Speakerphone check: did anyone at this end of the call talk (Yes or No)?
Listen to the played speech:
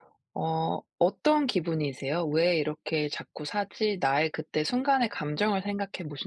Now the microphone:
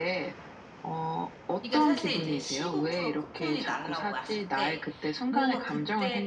Yes